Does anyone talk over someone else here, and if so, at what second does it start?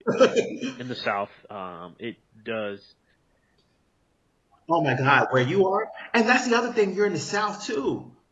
none

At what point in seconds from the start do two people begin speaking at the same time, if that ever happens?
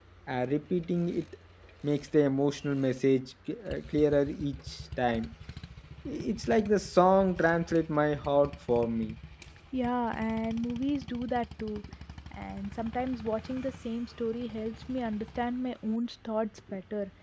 none

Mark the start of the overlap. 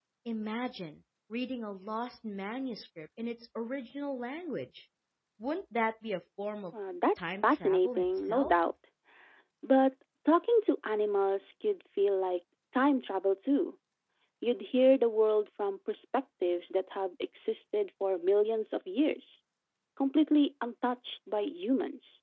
7 s

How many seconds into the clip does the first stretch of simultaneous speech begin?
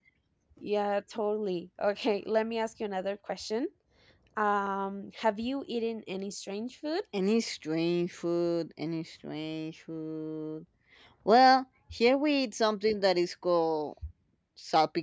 none

